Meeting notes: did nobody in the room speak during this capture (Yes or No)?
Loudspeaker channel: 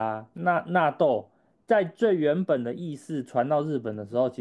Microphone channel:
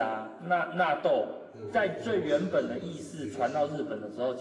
No